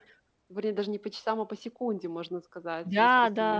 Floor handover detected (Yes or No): Yes